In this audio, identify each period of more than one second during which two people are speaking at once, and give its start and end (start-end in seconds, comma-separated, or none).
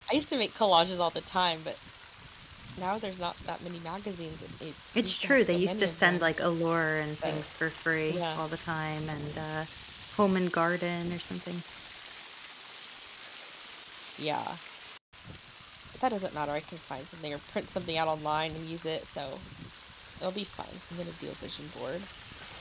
5.0-6.3